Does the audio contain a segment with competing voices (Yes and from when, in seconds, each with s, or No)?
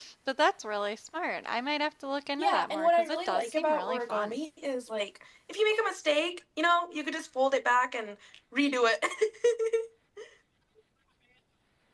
Yes, from 2.4 s